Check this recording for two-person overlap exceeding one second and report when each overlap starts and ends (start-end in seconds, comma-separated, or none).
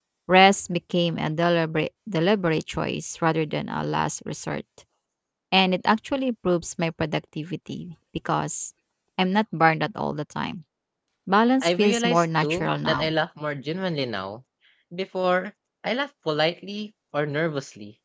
11.6-13.1